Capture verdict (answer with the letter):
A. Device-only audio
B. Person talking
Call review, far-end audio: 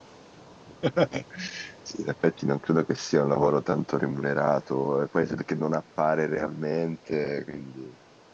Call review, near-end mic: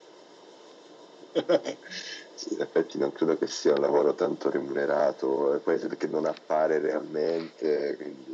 A